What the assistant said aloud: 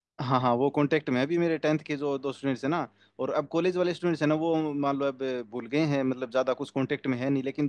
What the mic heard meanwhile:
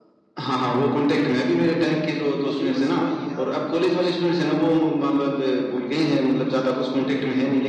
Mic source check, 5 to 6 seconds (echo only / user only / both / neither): echo only